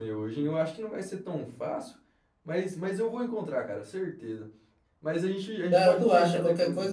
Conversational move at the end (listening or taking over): taking over